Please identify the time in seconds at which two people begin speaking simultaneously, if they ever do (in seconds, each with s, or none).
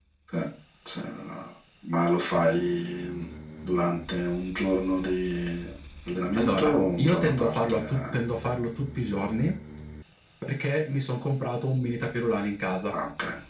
6.3 s